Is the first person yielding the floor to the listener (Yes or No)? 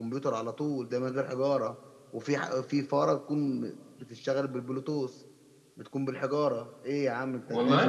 Yes